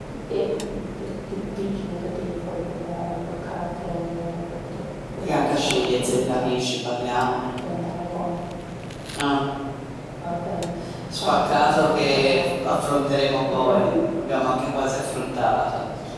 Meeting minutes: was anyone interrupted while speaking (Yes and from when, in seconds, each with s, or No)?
Yes, from 5.2 s